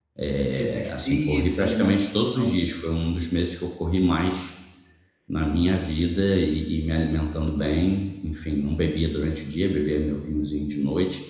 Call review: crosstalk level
present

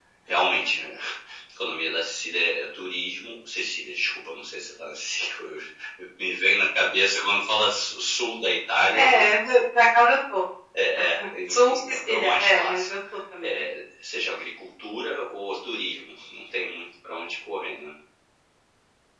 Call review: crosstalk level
present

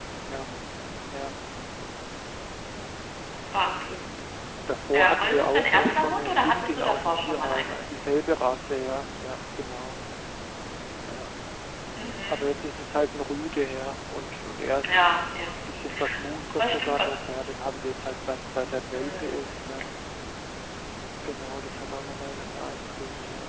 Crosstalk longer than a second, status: present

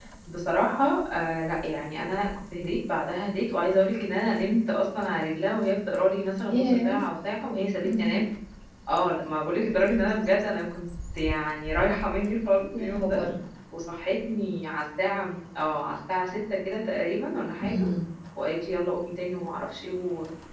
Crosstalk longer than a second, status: none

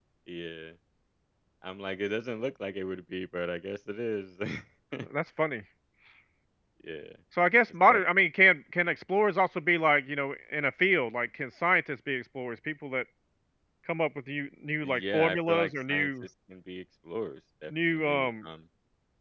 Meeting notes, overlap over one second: present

